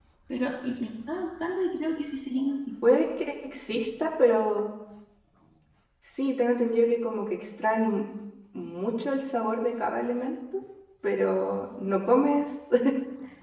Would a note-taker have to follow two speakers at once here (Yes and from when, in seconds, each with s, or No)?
No